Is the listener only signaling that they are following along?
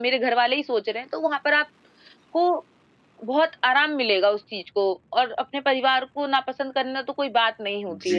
No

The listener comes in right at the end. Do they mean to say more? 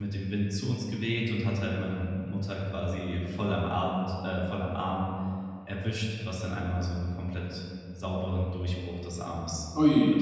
Yes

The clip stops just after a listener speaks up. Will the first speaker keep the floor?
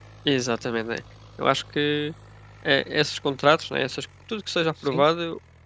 Yes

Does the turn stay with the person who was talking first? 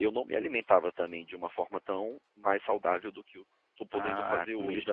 No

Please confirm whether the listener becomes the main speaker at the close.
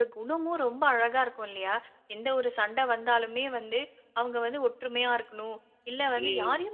No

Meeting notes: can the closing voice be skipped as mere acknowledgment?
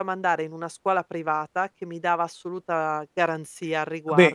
Yes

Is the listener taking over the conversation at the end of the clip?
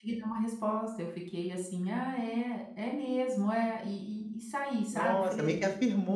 Yes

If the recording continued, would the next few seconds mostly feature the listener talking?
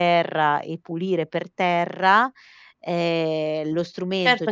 Yes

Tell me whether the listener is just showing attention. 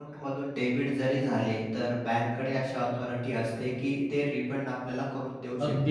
No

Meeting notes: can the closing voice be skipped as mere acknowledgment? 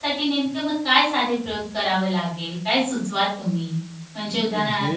Yes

